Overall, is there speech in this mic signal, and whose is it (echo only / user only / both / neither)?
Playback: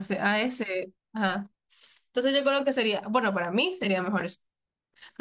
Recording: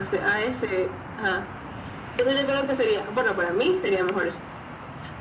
echo only